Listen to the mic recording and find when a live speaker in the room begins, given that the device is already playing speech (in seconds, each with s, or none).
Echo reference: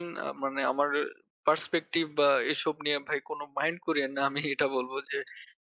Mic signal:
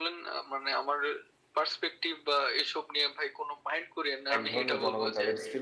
4.3 s